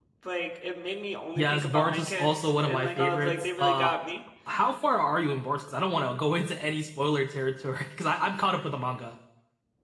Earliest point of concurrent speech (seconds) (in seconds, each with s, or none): 1.4 s